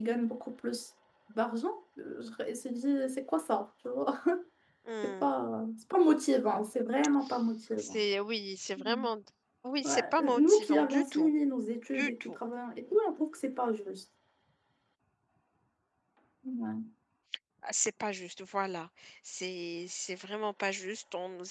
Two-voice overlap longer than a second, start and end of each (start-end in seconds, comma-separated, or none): 9.8-11.3